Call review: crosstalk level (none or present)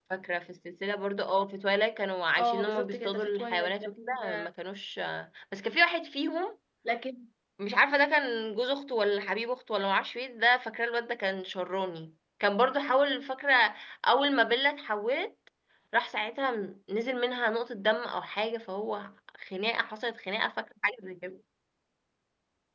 present